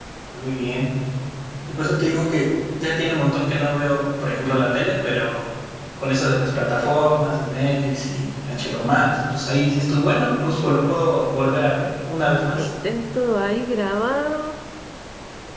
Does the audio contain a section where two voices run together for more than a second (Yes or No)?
No